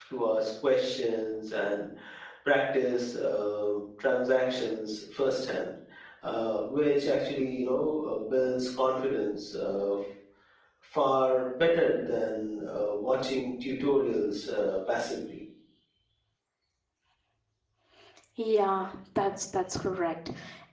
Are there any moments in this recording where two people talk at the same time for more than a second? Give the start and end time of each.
none

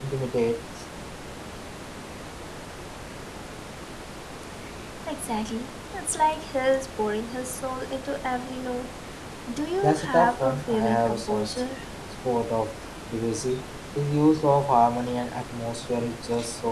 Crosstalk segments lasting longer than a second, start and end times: 9.8-11.6

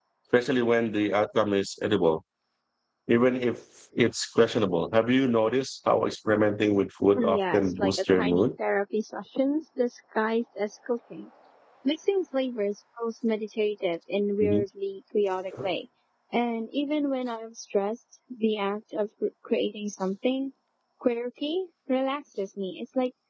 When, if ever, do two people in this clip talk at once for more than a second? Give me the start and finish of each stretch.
7.1-8.5

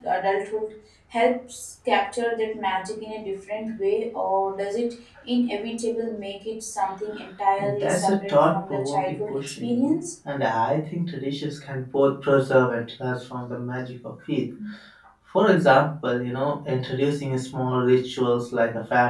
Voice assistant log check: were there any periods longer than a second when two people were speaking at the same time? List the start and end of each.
7.6-9.9

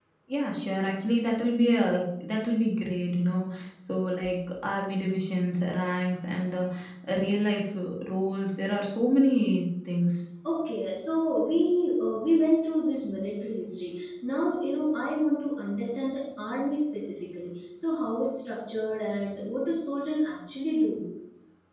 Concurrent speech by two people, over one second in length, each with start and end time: none

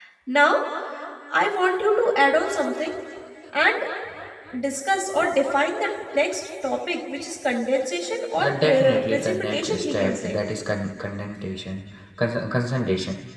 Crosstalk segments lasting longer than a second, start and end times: 8.4-10.4

